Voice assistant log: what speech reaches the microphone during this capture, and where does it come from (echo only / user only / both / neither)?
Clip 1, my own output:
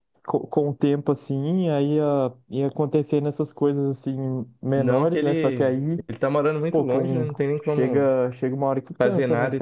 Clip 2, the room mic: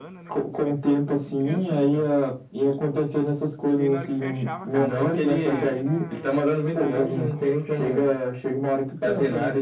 both